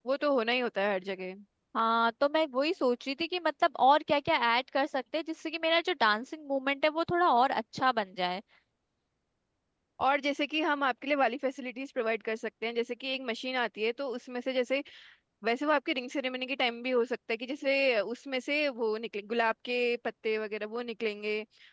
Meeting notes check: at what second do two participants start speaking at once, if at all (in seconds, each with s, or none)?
none